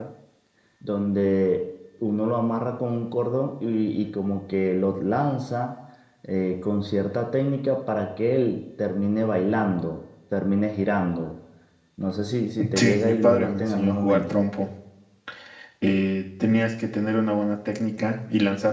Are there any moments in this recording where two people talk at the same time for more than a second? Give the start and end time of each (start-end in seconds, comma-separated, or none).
12.7-14.4